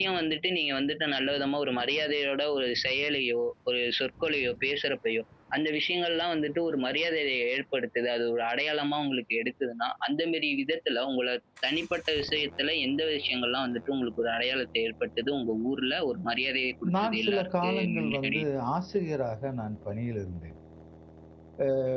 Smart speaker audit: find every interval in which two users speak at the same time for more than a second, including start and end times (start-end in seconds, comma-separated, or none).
17.0-18.4